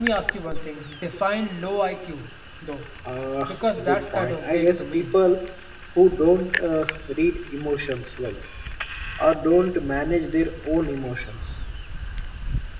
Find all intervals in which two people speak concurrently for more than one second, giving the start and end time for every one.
3.8-5.1

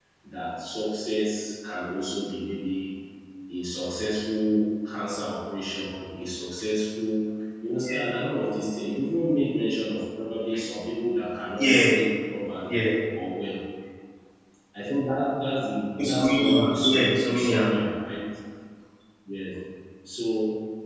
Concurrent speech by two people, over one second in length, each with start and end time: 16.0-17.6

